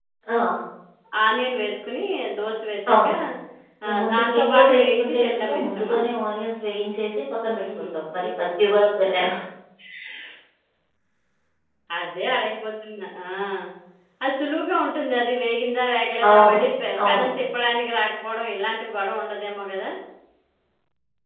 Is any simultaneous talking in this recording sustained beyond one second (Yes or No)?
Yes